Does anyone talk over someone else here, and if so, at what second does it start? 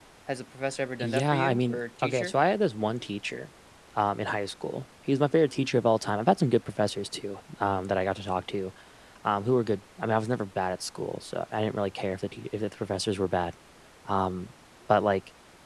1 s

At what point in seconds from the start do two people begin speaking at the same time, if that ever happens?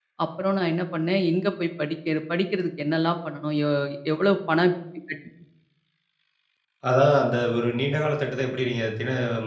none

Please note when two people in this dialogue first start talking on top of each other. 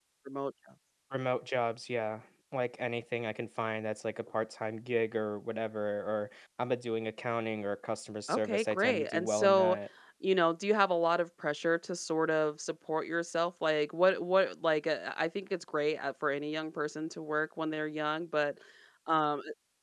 8 s

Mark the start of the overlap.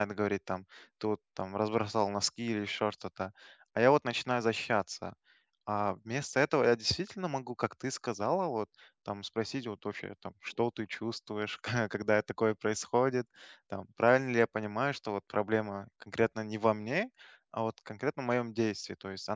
none

